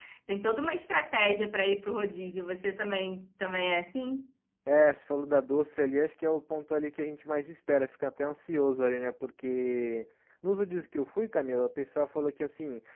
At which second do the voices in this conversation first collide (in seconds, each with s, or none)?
none